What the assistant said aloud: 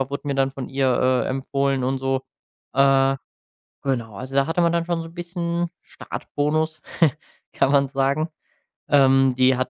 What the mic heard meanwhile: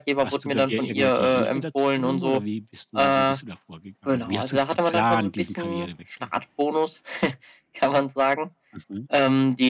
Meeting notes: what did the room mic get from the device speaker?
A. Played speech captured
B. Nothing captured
A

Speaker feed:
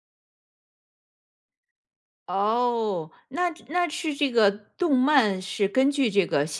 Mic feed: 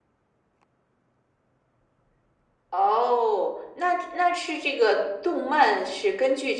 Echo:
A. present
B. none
A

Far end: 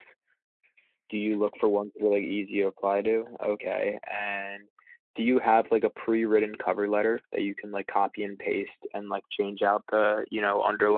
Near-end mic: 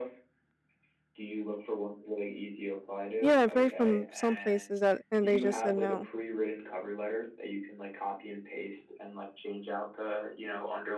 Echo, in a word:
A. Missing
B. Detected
B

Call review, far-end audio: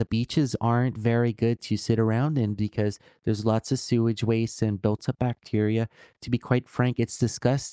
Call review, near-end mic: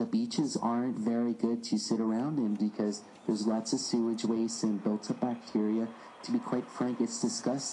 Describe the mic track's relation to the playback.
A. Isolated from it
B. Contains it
B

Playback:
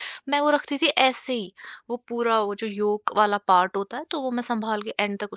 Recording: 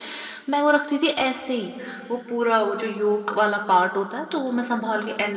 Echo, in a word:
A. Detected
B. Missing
A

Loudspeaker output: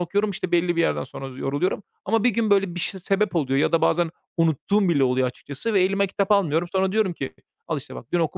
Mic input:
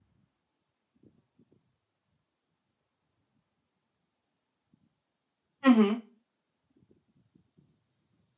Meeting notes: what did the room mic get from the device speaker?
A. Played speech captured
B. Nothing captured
B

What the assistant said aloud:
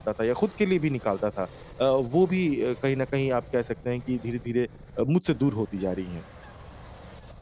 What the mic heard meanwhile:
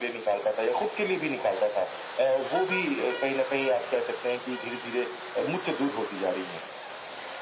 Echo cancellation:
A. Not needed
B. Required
B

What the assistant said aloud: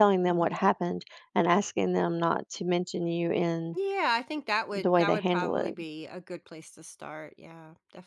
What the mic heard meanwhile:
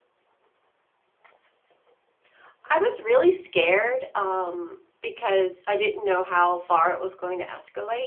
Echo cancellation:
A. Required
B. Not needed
B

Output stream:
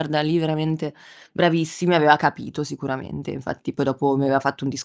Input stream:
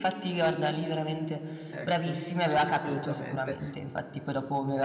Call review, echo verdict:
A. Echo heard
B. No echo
A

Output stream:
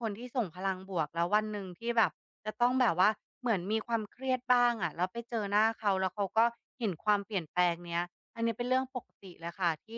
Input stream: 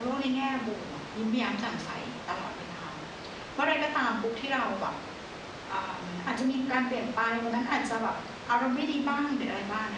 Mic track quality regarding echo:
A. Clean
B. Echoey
A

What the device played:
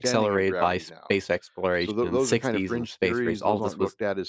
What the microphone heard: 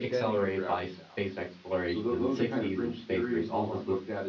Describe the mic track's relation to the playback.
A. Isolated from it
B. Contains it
B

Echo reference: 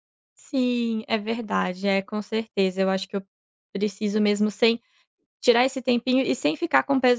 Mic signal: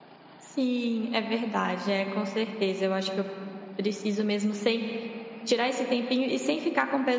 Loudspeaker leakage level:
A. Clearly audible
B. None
A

